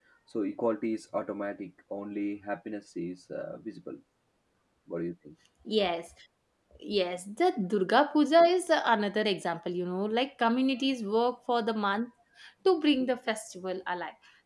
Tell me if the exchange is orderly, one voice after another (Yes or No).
Yes